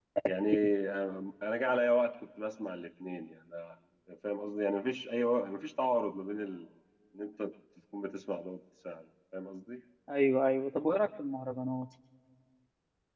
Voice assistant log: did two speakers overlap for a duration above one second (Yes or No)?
No